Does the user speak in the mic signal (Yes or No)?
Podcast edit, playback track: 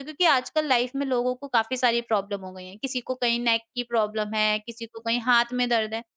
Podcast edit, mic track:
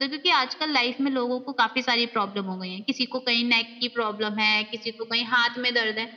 No